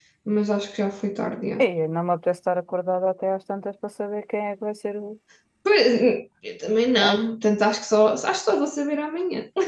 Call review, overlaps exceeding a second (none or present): none